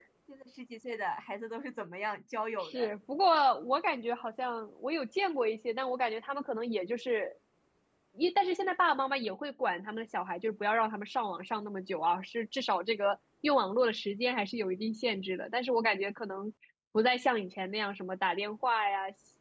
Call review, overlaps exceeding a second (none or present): none